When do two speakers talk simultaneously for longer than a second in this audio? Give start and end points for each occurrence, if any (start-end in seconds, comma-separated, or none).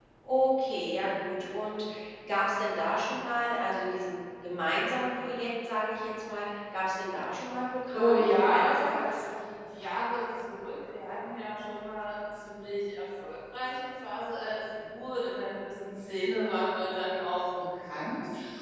7.9-9.2